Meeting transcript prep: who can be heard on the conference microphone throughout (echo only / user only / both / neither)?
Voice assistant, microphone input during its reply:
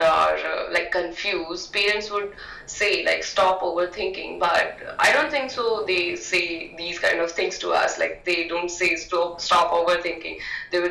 echo only